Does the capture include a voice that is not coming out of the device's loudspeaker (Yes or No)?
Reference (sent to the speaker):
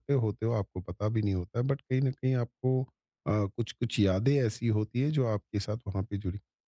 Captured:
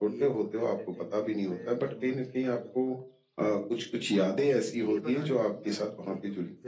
Yes